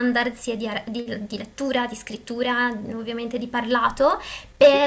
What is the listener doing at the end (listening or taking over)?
listening